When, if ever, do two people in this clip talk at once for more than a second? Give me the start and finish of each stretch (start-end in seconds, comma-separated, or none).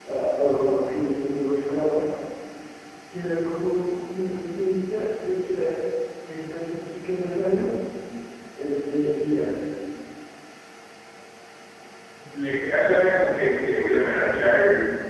12.9-14.2